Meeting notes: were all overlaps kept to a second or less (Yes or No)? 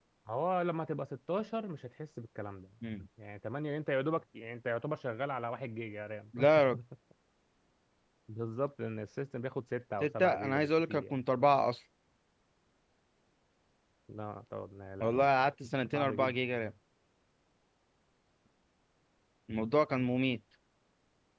No